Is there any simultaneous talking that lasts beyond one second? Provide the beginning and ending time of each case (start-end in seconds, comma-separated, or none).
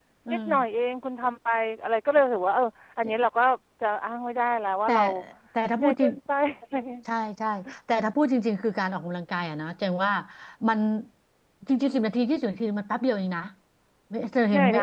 none